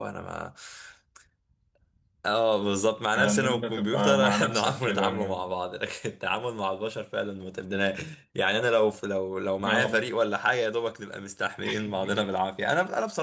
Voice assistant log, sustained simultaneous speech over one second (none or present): present